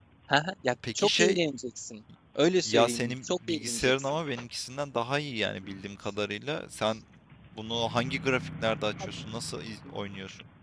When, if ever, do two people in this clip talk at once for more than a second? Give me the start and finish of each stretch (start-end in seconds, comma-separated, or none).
2.6-4.1